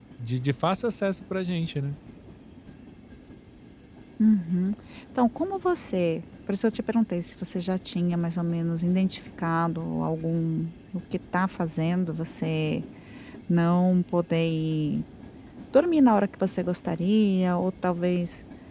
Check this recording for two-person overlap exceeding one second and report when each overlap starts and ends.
none

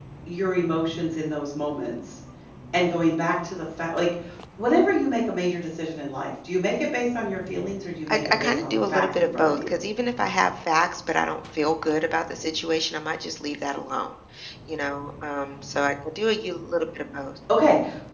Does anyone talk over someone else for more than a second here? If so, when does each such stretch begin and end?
8.1-9.7

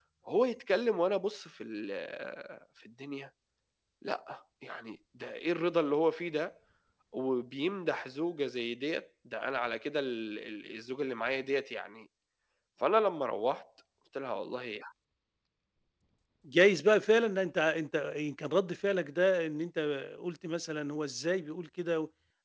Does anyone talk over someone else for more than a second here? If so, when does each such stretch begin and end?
none

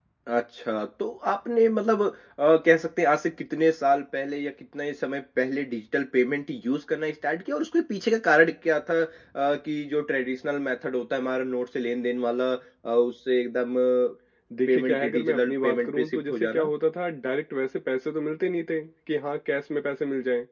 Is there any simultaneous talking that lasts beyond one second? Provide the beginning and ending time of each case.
14.7-16.7

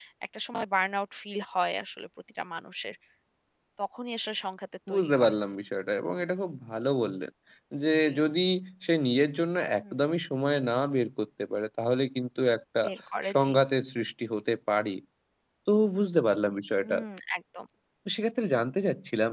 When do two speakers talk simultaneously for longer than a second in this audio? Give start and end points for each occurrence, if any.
none

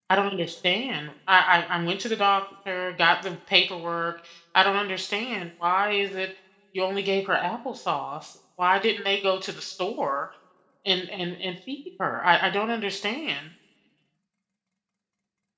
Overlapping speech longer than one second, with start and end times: none

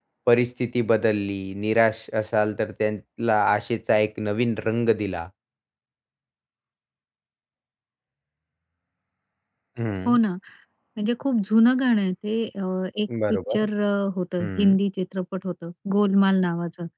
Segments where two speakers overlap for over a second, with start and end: none

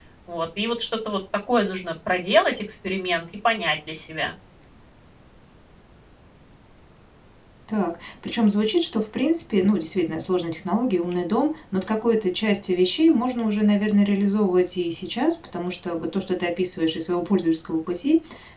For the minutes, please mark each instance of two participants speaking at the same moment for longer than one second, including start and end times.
none

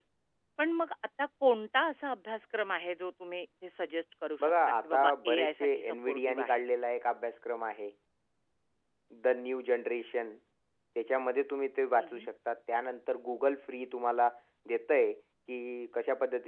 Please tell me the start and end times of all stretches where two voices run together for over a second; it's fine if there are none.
4.4-6.6

